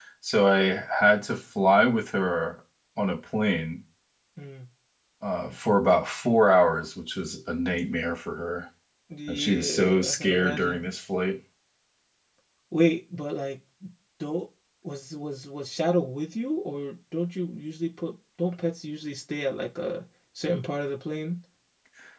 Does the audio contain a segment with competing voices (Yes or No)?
Yes